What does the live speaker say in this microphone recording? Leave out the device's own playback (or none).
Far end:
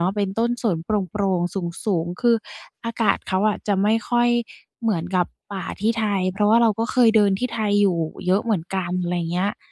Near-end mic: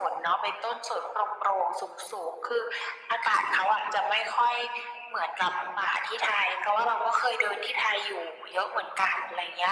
none